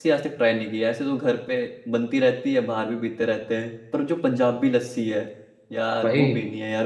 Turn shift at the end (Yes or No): Yes